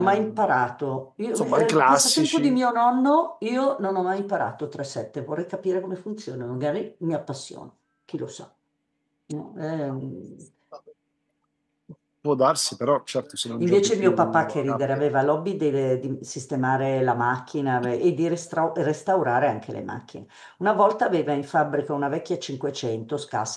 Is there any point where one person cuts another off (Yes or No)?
Yes